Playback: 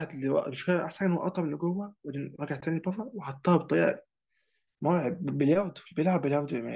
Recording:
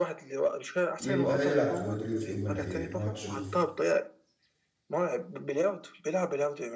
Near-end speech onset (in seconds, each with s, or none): 1.0 s